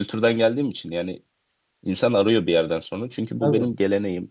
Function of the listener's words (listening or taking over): listening